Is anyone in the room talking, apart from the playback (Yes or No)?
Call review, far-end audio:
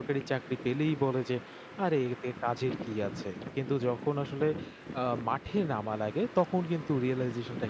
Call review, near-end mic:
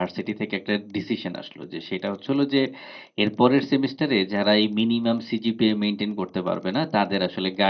Yes